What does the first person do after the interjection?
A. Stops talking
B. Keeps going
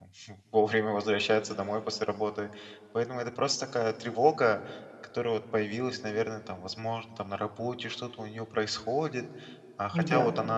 B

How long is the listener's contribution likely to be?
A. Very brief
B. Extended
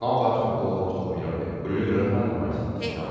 B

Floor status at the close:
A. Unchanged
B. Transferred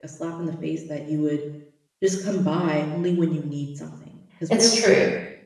A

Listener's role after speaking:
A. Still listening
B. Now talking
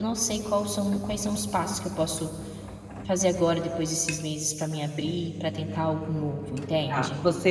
B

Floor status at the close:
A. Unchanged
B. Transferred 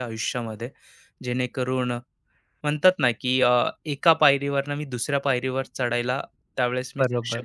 B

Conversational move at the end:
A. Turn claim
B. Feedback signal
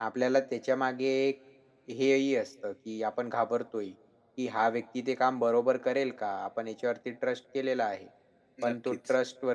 B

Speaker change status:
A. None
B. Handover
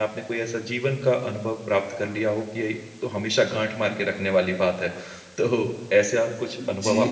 B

